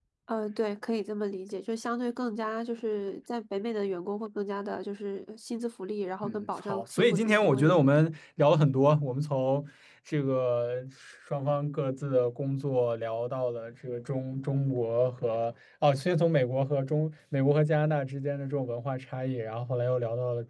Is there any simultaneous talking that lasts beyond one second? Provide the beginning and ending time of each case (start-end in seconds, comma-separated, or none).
6.2-7.8